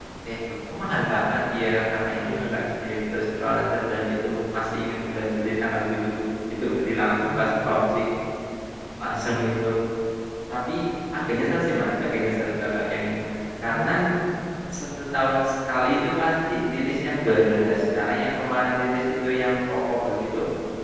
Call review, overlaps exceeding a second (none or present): none